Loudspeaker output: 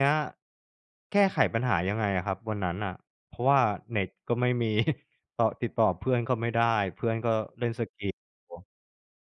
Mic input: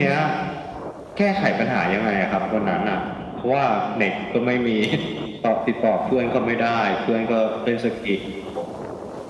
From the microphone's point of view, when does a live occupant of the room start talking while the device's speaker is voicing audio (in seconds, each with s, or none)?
none